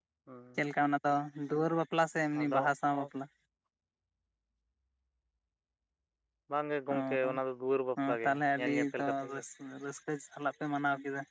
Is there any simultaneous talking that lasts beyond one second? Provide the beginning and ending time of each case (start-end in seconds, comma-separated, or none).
8.1-9.4